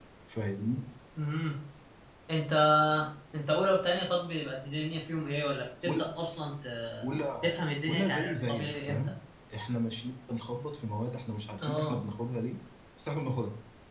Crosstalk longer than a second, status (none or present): present